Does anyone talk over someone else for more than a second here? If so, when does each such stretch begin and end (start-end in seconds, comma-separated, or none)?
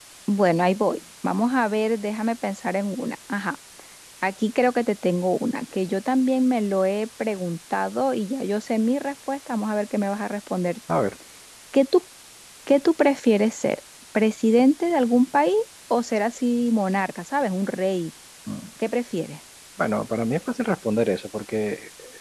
none